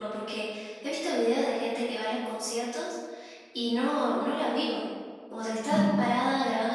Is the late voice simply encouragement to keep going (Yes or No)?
Yes